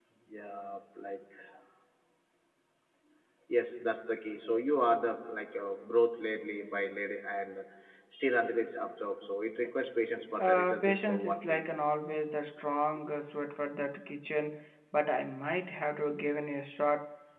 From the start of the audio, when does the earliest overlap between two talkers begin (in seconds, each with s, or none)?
10.4 s